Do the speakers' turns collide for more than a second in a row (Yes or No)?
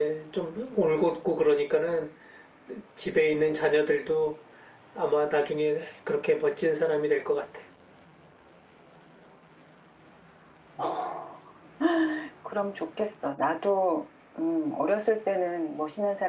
No